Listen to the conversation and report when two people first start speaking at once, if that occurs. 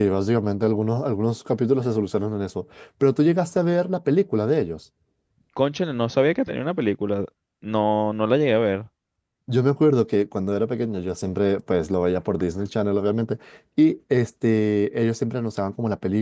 none

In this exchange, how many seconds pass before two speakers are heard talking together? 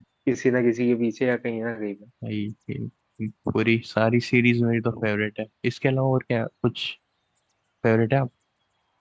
none

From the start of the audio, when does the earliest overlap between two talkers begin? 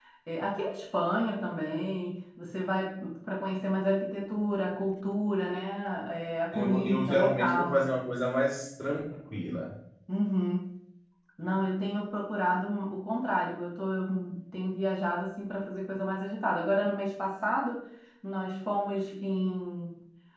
6.5 s

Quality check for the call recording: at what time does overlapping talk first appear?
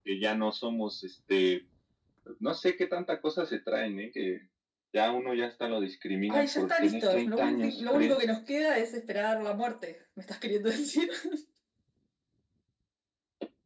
6.3 s

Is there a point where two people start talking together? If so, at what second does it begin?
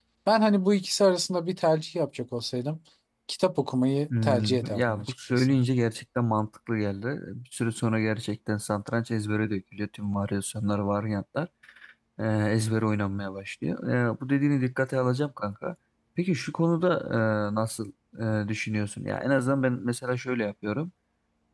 4.1 s

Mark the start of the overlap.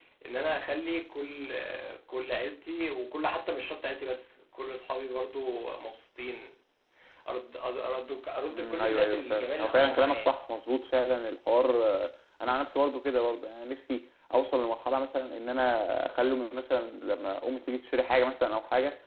8.5 s

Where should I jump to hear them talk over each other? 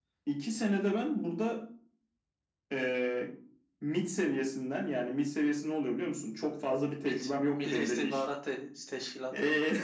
7.0 s

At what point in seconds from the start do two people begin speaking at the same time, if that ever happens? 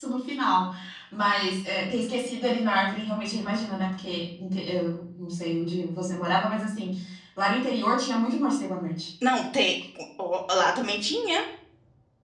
none

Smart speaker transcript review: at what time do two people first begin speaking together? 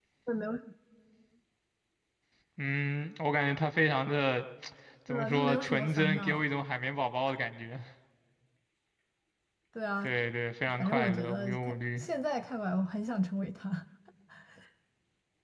5.1 s

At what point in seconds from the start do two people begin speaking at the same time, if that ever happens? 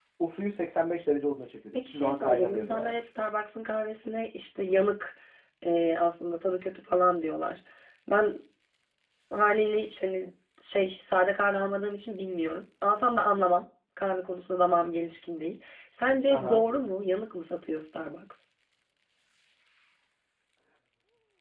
1.7 s

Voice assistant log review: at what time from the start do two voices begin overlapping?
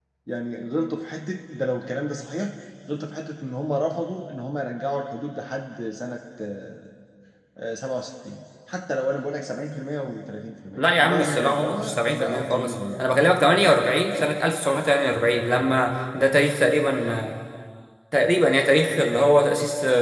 10.8 s

